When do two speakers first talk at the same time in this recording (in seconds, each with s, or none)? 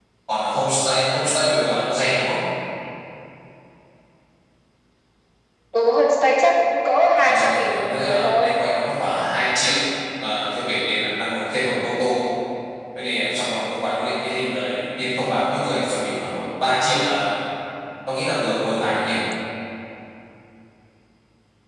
7.2 s